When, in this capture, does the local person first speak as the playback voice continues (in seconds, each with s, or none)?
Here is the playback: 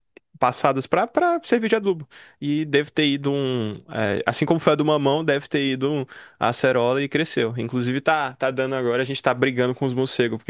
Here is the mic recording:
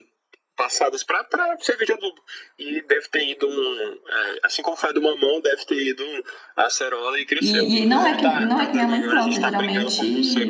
7.4 s